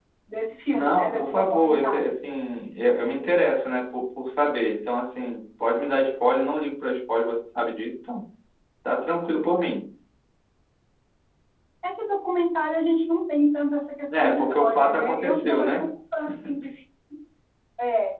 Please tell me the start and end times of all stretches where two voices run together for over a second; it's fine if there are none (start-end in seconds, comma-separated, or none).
0.7-2.0, 14.2-15.7